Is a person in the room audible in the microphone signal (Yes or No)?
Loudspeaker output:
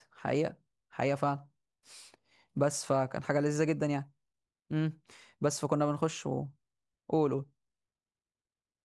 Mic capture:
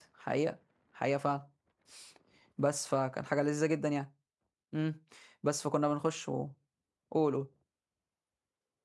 No